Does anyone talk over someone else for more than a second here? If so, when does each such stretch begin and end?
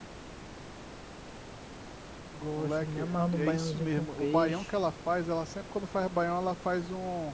2.5-4.7

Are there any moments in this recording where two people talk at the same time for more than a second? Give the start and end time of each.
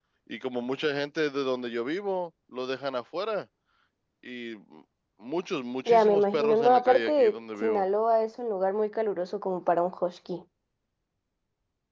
5.9-7.8

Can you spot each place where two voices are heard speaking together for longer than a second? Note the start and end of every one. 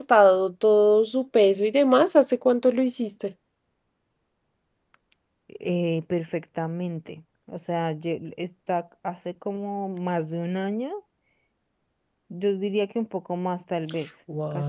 none

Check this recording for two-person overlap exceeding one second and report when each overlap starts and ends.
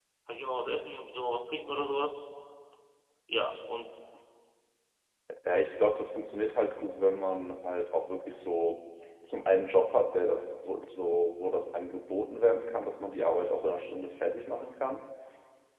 none

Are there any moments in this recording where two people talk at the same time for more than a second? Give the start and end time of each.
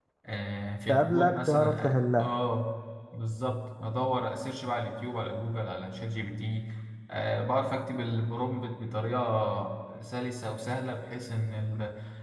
0.9-2.3

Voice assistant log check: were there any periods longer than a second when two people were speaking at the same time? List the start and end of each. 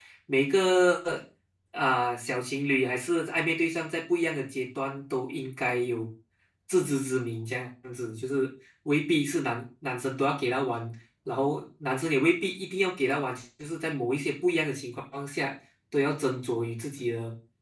none

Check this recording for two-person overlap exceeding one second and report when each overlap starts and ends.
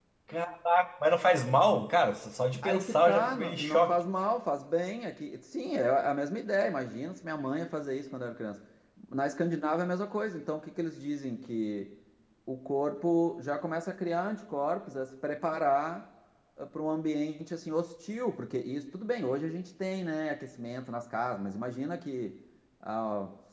2.6-3.9

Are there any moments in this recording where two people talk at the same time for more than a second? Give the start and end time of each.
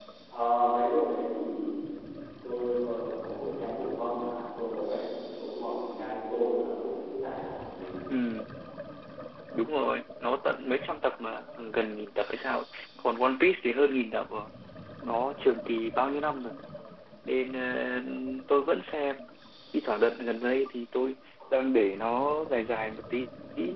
none

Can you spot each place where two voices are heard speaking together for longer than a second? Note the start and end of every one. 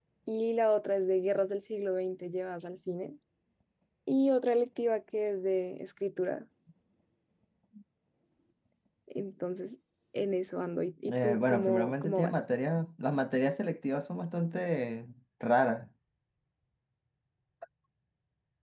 11.1-12.3

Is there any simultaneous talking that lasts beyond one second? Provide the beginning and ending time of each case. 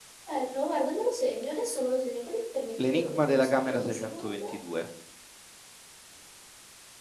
2.8-4.5

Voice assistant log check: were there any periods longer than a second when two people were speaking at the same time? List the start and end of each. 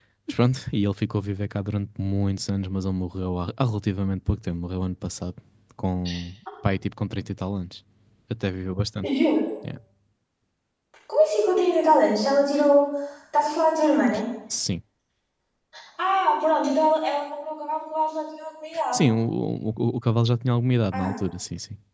none

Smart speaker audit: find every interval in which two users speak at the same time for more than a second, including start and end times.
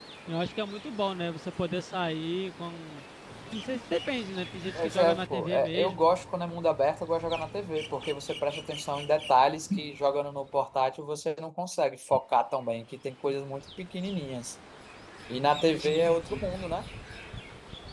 4.8-6.1

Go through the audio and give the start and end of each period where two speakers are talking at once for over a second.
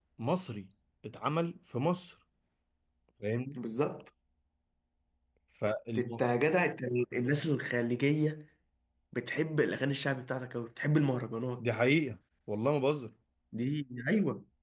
none

